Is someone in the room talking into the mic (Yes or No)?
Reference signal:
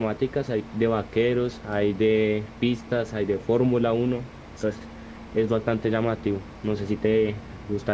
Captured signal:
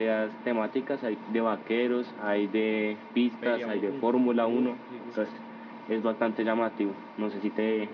Yes